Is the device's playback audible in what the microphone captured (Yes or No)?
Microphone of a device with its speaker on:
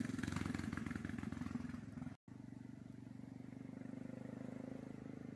No